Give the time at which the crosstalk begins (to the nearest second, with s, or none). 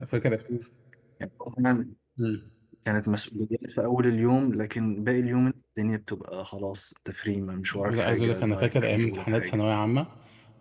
8 s